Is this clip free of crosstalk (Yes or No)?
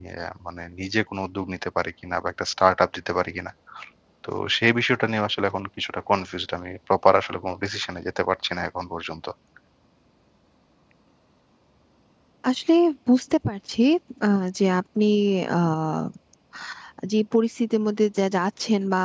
Yes